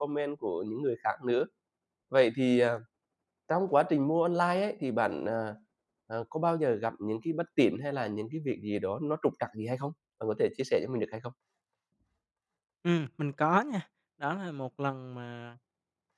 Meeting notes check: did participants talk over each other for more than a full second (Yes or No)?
No